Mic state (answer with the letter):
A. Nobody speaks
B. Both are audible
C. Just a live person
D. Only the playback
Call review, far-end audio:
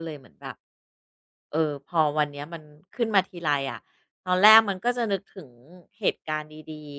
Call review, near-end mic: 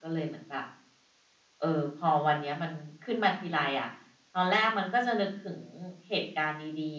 D